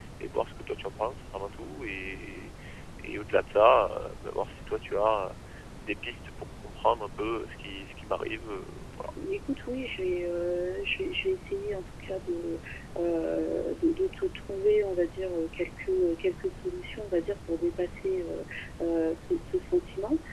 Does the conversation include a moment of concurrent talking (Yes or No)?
No